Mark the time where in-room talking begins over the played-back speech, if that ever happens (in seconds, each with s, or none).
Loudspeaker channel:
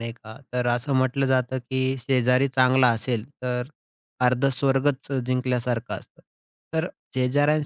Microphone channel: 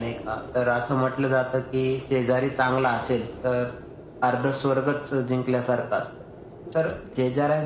none